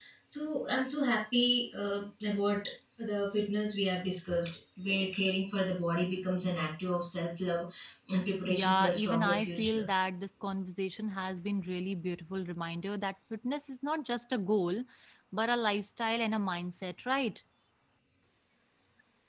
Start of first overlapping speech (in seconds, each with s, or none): 8.5 s